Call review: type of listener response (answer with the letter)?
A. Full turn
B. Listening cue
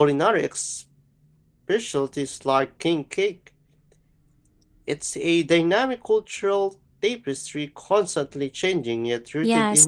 A